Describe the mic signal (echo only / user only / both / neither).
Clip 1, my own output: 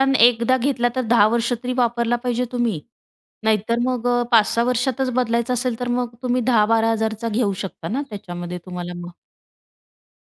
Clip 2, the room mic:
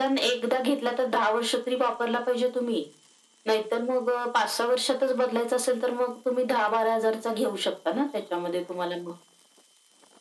echo only